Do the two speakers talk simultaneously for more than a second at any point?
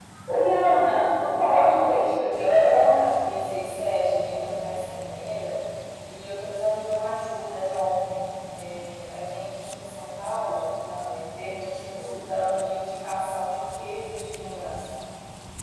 Yes, from 1.2 s

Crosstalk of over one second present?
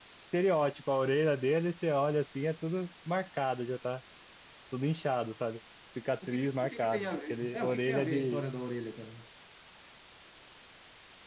Yes, from 6.2 s

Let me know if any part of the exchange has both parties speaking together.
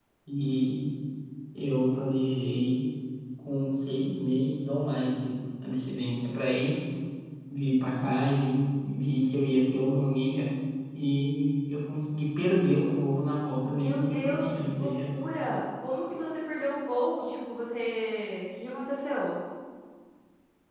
Yes, from 13.6 s

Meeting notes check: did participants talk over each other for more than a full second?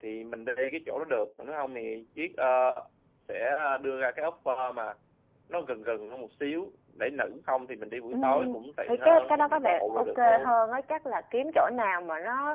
Yes, from 8.1 s

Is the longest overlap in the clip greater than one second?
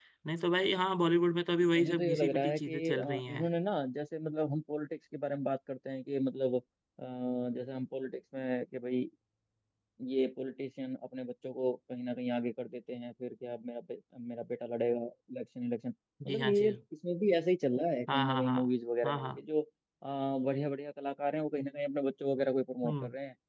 Yes, from 1.8 s

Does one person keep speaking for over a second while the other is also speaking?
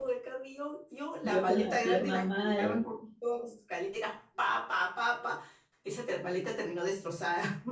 Yes, from 1.2 s

